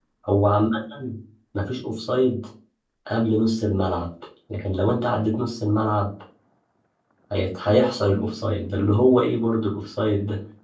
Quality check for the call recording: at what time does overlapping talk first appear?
none

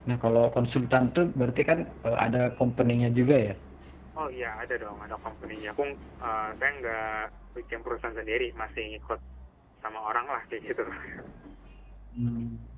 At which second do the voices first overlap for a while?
none

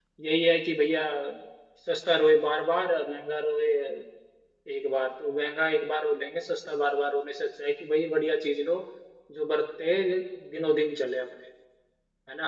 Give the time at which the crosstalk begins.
none

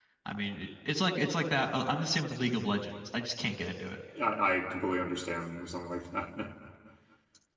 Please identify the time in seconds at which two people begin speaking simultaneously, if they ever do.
none

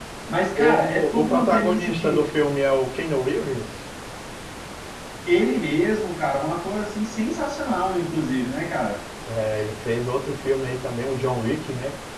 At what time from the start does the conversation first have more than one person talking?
1 s

